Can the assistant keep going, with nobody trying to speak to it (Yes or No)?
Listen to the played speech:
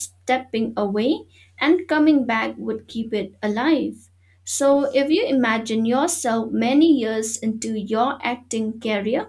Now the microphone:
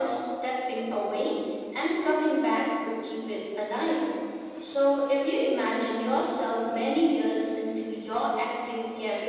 Yes